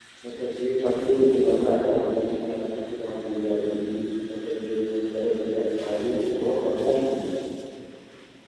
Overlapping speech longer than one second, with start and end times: none

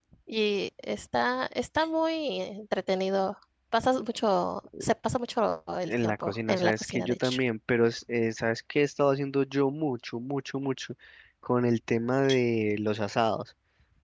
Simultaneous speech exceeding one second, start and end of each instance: 5.8-7.4

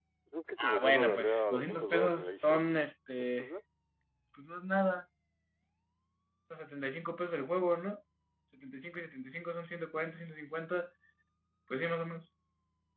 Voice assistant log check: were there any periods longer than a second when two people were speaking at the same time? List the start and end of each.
0.6-2.6

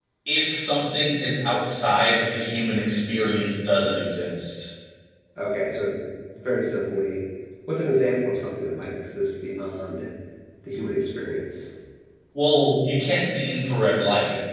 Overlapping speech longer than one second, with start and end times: none

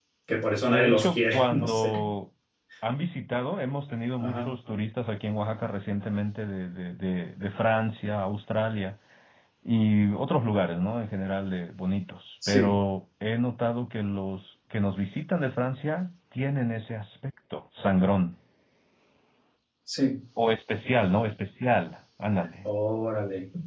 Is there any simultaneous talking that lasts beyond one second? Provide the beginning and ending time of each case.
0.7-1.9

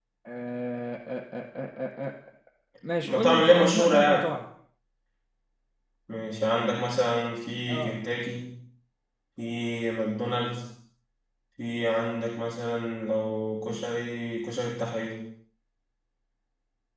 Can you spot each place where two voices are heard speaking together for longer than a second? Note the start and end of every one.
3.0-4.3

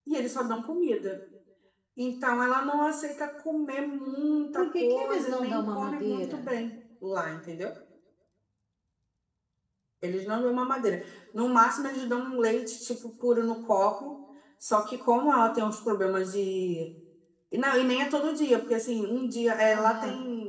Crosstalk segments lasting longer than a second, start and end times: 4.5-6.5

